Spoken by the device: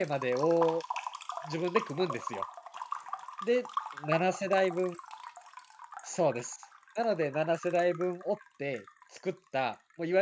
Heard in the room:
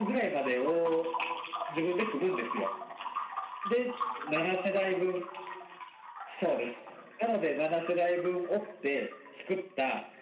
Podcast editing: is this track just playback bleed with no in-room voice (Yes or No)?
Yes